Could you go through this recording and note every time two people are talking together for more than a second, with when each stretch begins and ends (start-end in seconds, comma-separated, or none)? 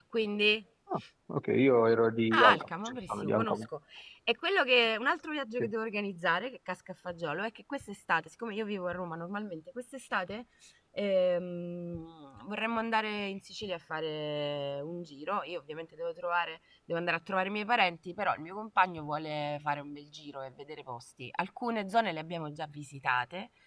2.3-3.7